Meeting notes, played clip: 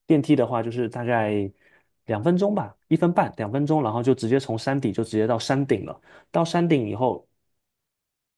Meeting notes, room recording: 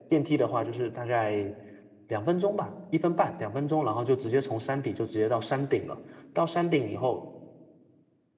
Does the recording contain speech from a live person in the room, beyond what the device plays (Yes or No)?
No